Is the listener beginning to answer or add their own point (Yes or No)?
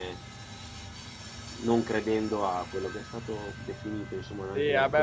Yes